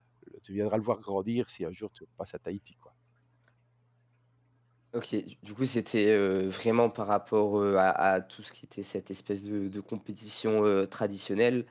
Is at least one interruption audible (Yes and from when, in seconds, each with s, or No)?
No